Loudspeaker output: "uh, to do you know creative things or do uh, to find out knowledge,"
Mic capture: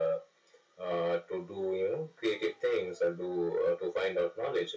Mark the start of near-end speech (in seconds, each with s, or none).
none